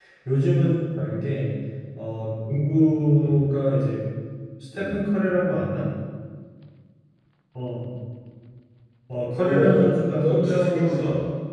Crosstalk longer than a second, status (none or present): present